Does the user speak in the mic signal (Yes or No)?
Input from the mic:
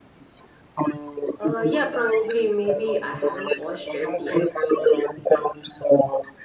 Yes